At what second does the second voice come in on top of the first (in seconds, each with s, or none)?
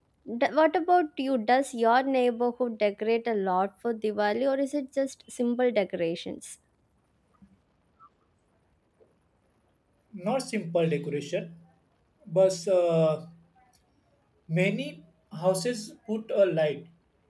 none